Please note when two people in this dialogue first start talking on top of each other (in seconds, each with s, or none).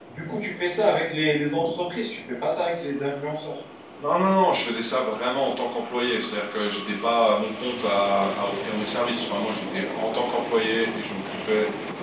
none